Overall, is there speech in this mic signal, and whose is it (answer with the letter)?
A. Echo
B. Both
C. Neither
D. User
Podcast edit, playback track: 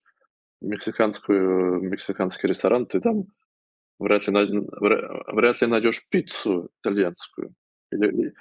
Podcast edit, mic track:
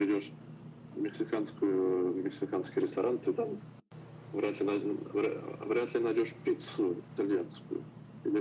A